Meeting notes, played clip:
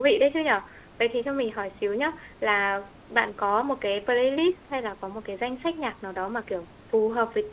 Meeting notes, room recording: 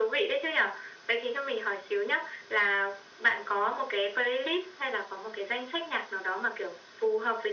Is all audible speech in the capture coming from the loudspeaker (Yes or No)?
Yes